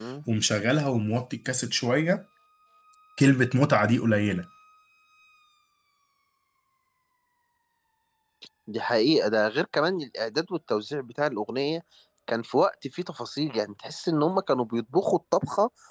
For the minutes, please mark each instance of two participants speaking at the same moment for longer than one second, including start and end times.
none

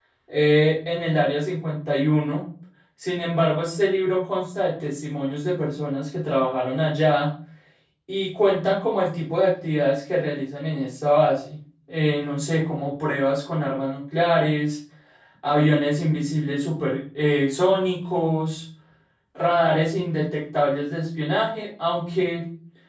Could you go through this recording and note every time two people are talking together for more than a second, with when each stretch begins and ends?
none

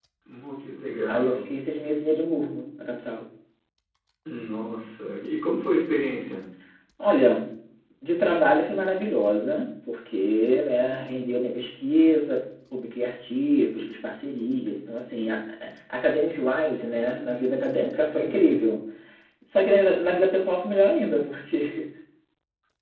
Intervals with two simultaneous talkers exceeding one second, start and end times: none

